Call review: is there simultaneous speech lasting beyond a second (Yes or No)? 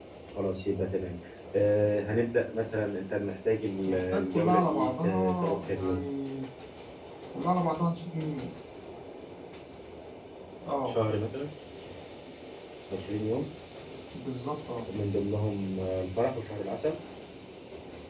Yes